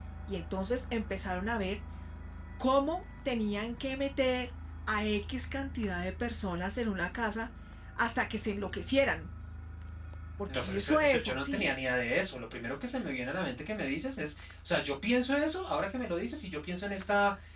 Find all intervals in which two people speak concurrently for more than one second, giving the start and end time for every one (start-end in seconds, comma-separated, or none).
10.5-11.7